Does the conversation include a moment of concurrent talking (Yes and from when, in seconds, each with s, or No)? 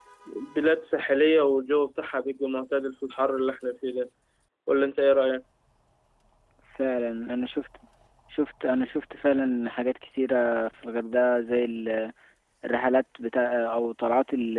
No